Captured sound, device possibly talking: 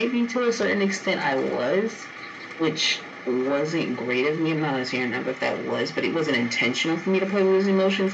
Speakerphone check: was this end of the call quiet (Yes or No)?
Yes